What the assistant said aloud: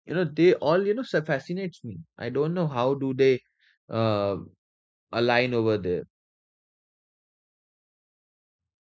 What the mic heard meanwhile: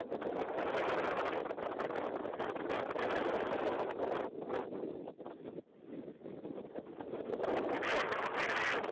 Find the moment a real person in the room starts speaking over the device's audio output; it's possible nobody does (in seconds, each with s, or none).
none